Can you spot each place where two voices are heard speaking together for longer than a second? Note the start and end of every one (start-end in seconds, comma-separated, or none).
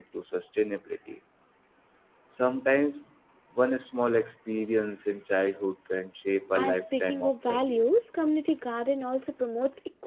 6.5-7.8